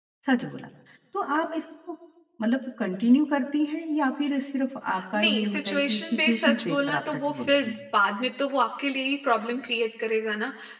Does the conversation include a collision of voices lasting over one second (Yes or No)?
Yes